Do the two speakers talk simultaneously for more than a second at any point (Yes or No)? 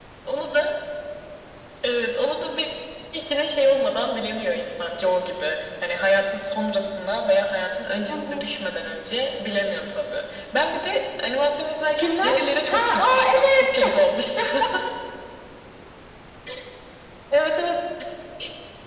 Yes